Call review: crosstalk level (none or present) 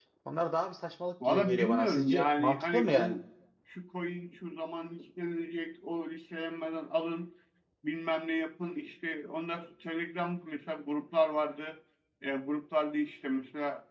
present